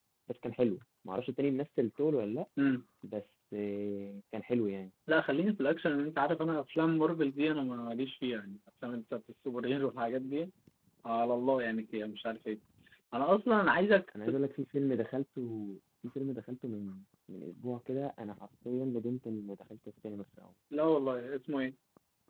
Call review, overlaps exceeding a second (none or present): none